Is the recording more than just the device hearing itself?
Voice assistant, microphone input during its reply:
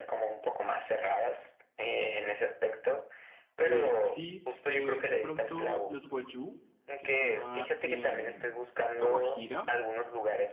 Yes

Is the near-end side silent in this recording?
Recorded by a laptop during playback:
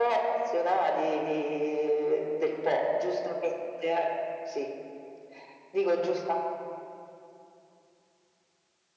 Yes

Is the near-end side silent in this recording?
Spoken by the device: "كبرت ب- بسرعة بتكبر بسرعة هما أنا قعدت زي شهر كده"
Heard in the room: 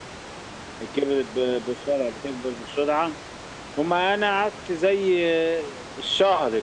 Yes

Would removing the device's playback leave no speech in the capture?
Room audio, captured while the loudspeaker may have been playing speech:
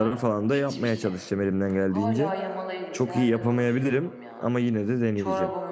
No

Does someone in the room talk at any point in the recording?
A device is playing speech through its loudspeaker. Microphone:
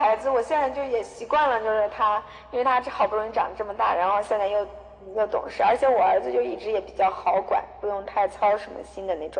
No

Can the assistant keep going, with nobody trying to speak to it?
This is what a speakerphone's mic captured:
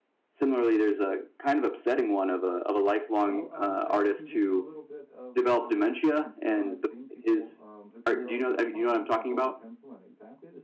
No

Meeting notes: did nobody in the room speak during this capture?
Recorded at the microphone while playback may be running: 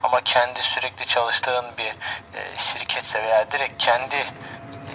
Yes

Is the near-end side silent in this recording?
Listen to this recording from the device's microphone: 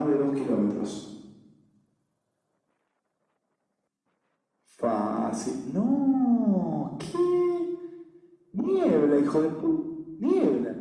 Yes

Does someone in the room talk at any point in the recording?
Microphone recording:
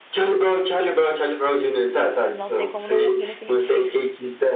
Yes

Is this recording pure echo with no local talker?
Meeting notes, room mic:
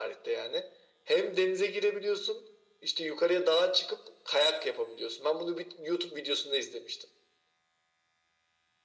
Yes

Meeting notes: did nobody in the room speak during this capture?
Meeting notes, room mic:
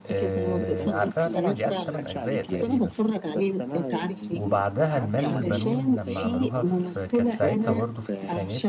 No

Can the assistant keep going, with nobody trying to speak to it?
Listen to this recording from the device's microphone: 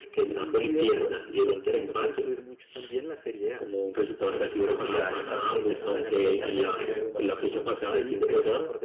No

